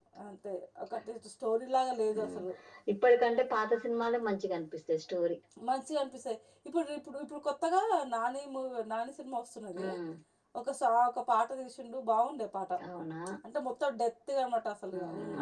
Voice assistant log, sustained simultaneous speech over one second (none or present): none